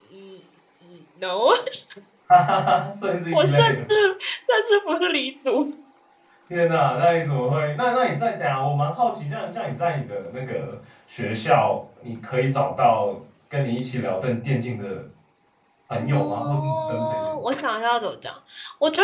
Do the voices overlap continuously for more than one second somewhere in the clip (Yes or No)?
Yes